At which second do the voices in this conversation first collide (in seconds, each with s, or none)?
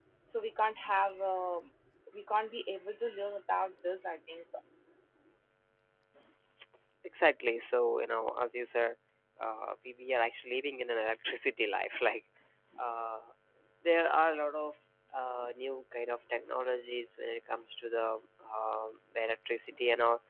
none